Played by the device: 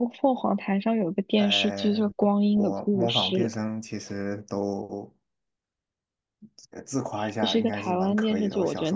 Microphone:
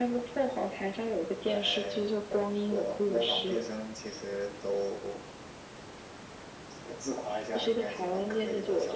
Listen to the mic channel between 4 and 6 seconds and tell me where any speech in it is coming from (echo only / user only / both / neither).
echo only